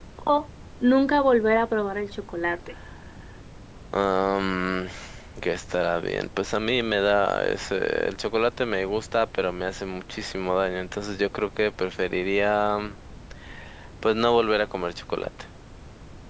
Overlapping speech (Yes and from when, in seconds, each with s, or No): No